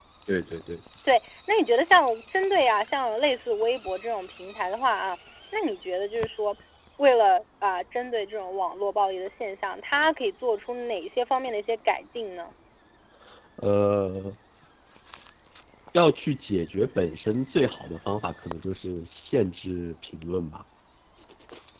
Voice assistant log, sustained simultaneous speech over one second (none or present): none